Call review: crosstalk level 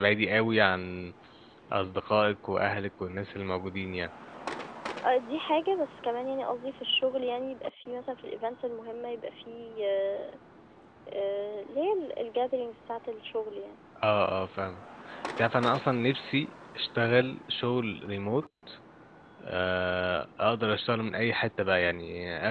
none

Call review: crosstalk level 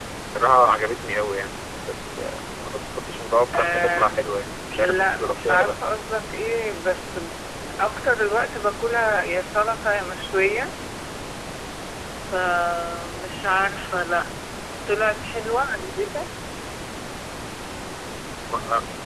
present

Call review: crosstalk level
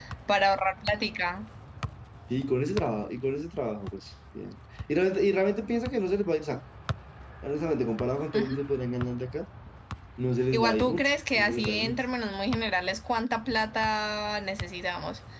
present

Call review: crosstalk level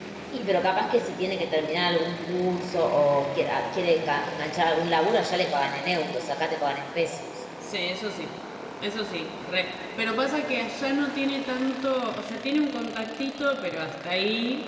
none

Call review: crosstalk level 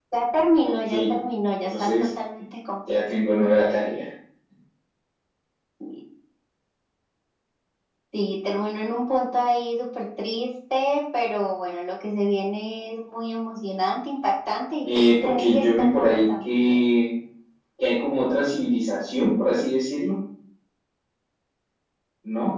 present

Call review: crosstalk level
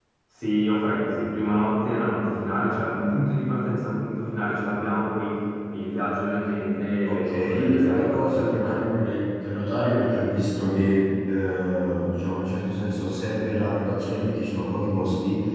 present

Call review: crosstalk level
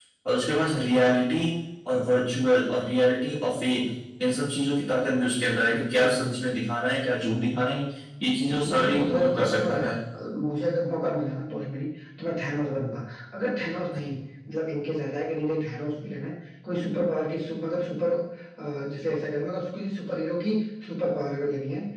present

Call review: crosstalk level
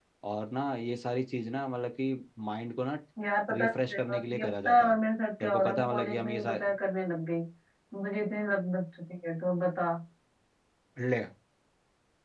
present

